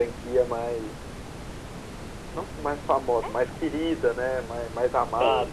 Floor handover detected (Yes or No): Yes